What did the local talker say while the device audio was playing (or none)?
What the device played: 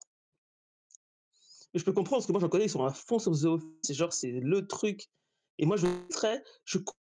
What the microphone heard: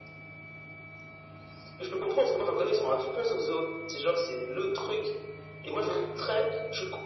none